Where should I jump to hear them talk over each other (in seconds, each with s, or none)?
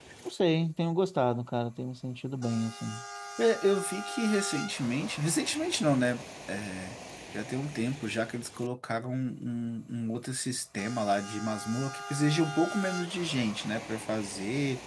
none